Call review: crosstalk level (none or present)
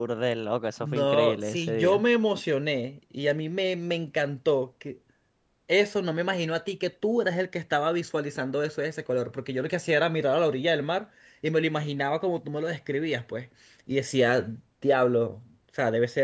present